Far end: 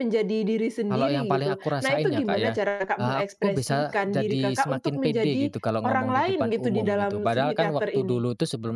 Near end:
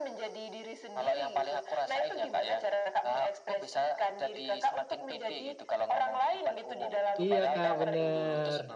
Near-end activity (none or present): present